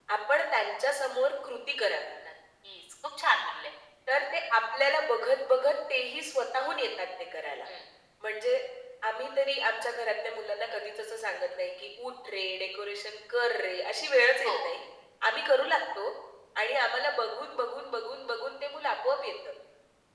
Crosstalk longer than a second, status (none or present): none